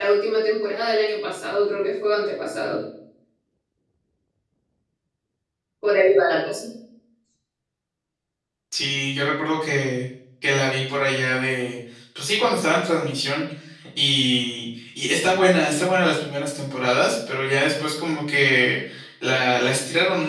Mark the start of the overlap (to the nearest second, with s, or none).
none